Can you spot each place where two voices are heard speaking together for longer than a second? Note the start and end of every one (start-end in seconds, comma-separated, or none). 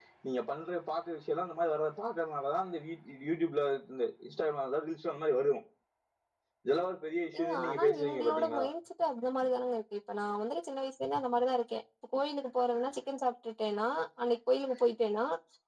7.4-8.6